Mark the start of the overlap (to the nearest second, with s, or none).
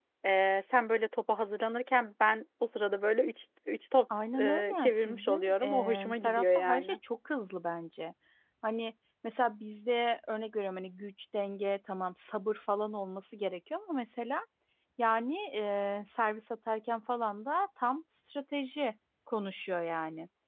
4 s